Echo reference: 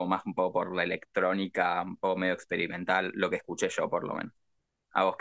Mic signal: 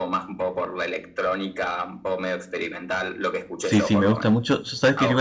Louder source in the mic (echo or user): user